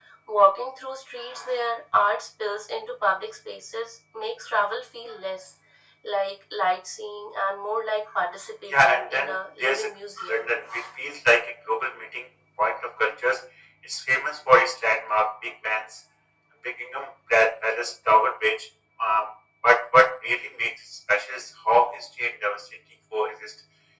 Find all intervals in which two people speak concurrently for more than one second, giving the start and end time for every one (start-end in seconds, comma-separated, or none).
8.7-9.9